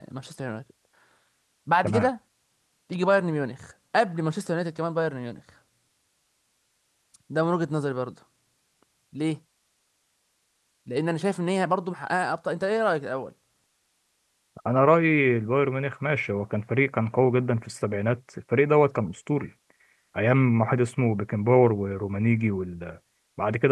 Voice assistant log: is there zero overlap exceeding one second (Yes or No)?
Yes